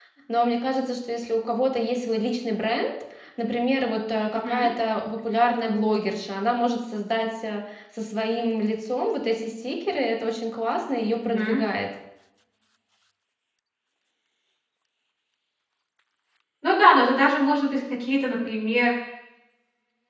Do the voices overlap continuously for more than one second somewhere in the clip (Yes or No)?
No